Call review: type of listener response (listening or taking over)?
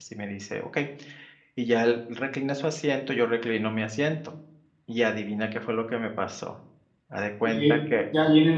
taking over